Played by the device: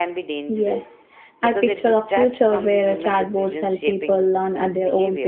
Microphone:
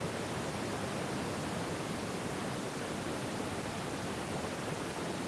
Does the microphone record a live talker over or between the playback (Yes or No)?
No